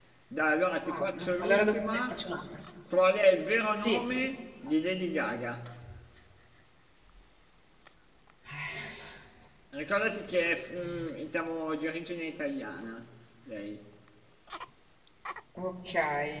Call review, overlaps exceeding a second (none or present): present